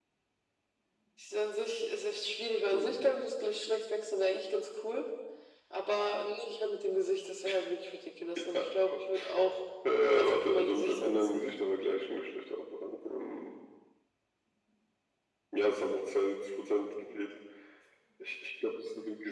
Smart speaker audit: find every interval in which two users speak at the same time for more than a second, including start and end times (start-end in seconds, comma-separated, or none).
10.0-11.4